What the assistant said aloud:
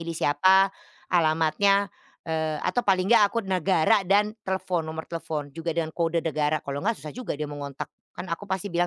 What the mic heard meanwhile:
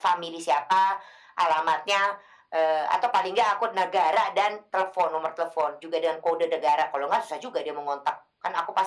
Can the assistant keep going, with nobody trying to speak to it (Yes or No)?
Yes